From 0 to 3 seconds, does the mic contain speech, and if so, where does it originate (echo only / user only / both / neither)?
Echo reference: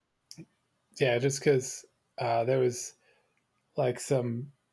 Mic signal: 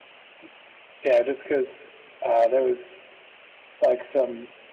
echo only